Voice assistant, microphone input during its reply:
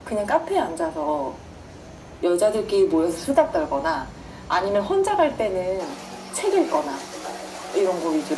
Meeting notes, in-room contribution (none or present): none